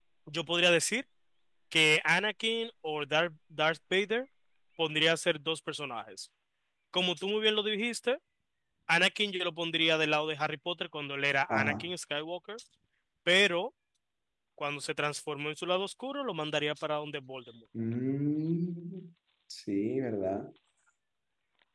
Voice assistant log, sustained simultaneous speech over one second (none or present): none